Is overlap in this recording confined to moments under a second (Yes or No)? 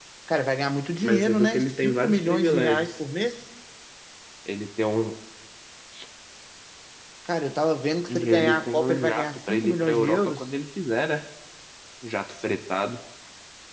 No